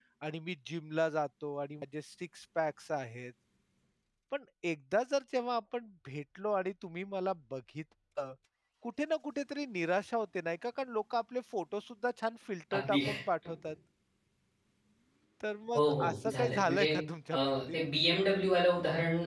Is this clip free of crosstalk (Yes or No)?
No